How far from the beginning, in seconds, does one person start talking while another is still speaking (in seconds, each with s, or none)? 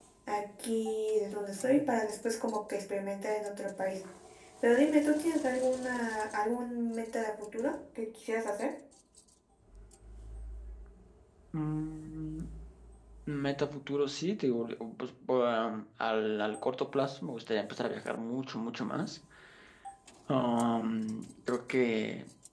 none